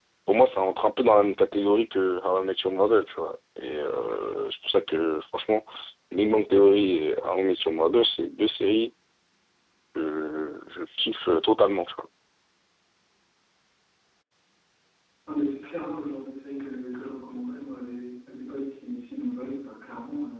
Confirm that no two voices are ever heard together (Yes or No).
Yes